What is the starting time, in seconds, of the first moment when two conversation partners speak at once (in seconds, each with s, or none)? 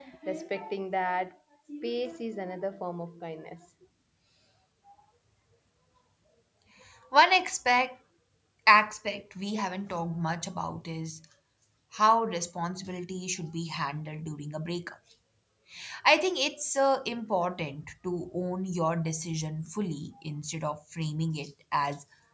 none